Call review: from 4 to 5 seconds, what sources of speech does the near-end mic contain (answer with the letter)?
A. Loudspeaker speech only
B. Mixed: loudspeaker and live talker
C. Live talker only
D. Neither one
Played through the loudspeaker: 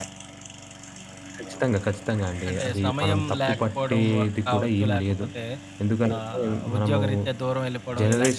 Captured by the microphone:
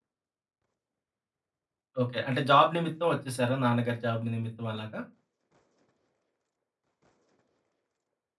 C